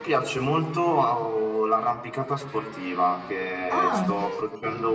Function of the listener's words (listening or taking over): listening